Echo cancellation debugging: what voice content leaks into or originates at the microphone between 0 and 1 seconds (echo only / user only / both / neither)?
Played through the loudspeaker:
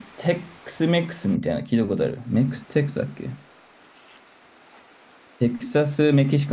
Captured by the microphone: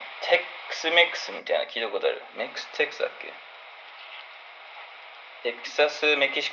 echo only